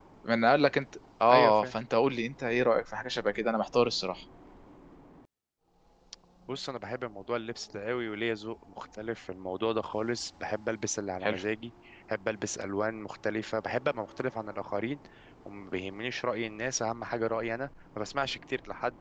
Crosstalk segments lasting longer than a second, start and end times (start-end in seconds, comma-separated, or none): none